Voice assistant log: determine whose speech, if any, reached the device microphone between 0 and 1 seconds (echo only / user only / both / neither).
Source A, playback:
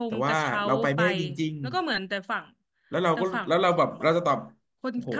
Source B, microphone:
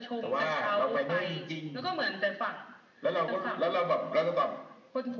echo only